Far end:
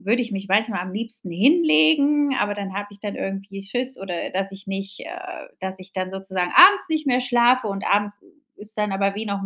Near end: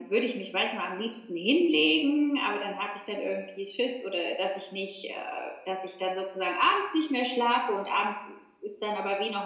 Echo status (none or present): present